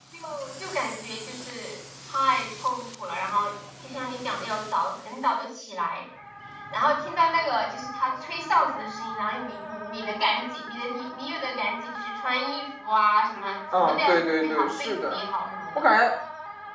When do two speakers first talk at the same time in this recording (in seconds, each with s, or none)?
13.7 s